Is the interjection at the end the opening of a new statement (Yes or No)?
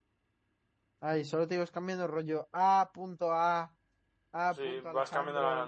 Yes